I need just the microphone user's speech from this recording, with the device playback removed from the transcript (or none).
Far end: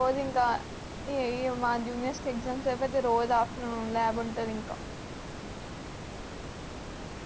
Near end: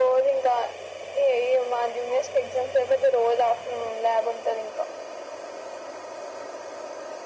none